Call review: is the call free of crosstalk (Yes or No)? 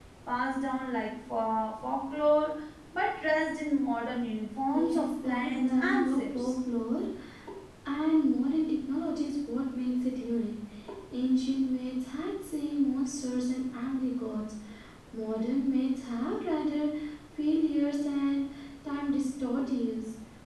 No